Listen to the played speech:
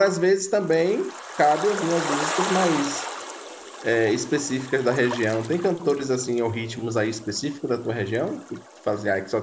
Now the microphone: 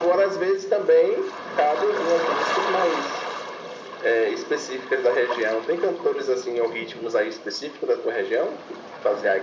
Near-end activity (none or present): none